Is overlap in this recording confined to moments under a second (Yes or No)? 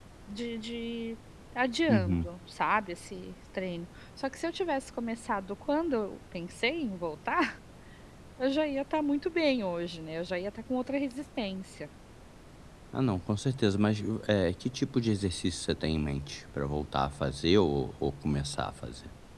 Yes